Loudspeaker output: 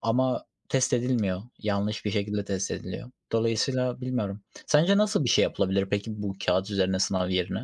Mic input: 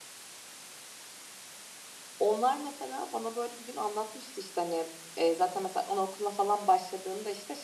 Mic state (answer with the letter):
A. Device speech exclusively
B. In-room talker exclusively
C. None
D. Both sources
B